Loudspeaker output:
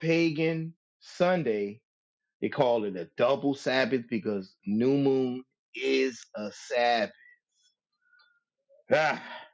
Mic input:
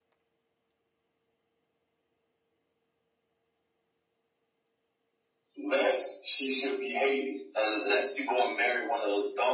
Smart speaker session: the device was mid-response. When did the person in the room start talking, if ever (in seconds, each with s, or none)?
5.6 s